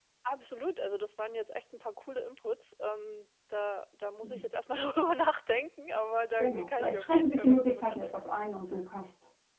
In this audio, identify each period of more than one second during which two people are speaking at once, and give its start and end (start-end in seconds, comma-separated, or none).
6.4-8.4